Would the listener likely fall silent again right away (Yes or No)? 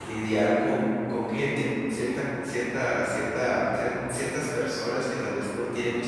Yes